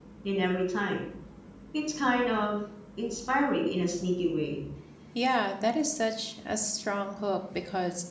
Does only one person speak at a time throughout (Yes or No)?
Yes